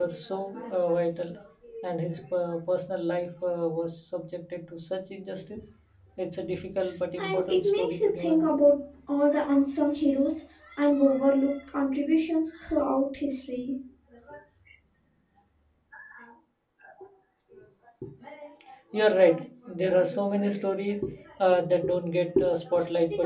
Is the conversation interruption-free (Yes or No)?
No